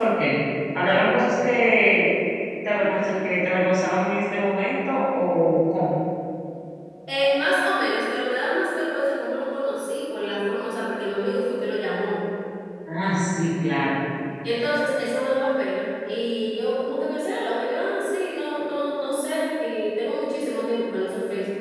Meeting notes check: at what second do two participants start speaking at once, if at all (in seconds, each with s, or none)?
none